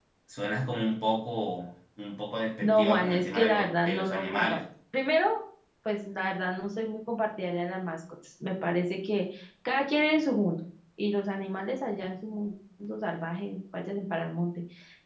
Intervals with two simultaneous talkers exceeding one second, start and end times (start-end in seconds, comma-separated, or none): 2.6-4.6